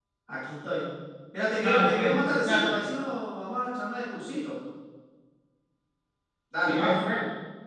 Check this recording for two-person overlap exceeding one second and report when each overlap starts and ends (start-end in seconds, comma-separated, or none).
1.6-2.8